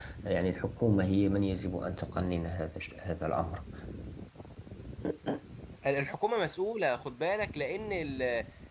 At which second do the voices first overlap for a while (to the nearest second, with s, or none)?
none